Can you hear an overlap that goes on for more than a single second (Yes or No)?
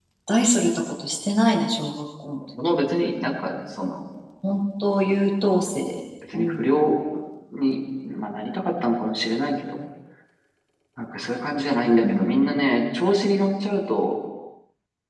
No